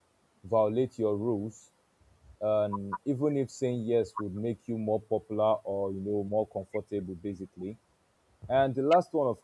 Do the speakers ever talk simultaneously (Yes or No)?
No